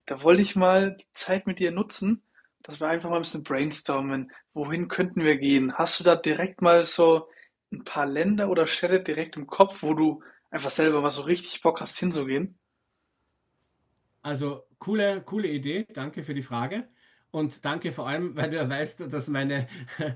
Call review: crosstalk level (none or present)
none